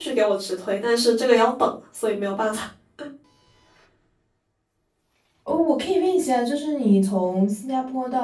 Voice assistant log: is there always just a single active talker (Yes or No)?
Yes